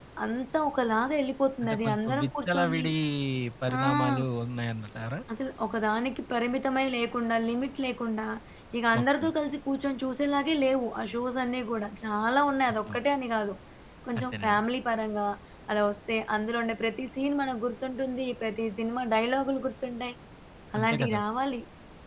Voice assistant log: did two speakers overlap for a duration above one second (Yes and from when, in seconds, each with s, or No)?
Yes, from 1.6 s